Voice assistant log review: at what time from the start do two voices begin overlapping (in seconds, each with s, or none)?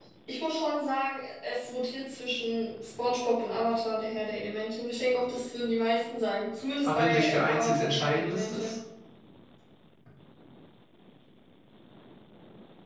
6.8 s